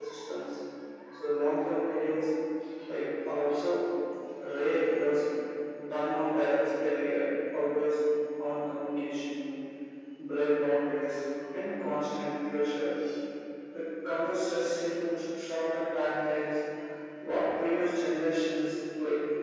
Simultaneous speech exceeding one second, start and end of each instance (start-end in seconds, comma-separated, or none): none